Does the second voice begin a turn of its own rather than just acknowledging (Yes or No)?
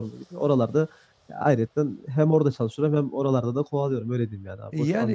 Yes